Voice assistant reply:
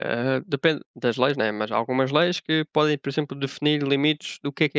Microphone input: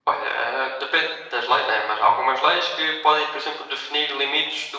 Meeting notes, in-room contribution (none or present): none